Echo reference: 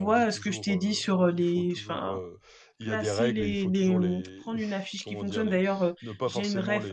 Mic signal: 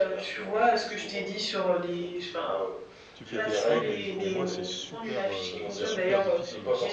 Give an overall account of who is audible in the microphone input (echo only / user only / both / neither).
both